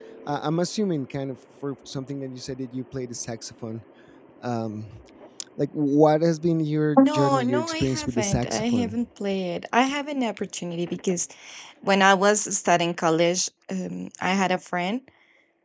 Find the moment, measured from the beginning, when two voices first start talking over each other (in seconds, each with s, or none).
7.0 s